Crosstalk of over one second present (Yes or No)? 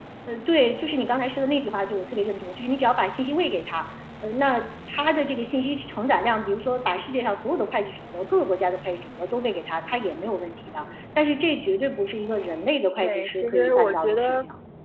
Yes